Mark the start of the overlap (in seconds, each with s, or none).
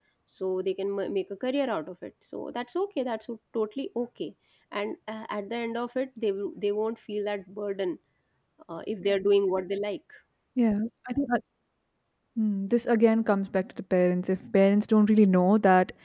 none